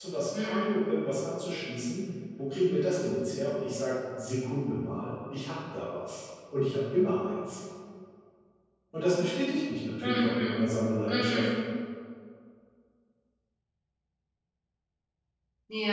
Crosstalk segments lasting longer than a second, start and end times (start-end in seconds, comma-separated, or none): none